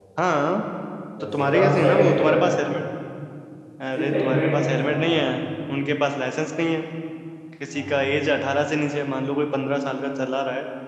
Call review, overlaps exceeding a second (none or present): present